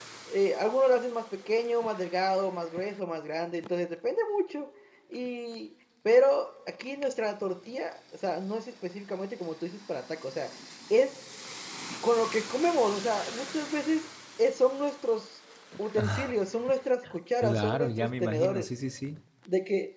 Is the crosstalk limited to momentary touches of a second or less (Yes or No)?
No